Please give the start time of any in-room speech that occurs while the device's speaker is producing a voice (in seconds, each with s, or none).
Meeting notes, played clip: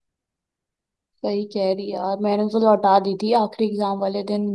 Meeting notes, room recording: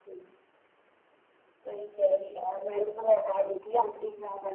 none